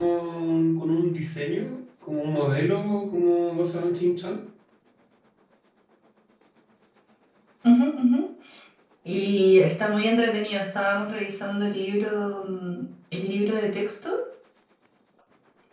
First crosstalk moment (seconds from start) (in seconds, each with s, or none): none